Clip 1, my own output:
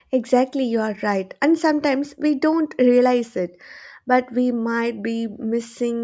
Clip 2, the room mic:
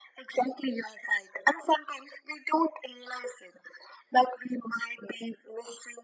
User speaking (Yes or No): No